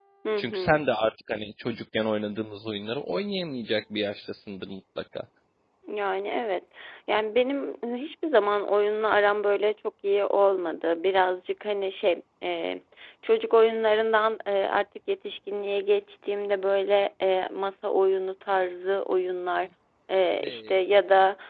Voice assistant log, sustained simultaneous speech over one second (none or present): none